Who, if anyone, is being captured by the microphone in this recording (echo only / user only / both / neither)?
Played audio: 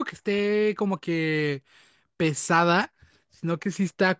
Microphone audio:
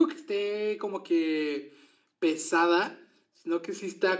echo only